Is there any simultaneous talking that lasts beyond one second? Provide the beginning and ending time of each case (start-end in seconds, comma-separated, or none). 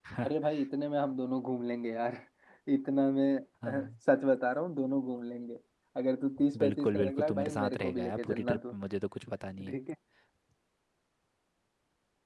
6.6-8.6